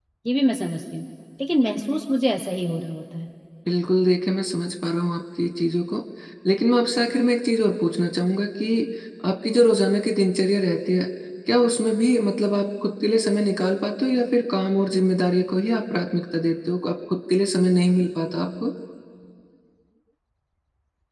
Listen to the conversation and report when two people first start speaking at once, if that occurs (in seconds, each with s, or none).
none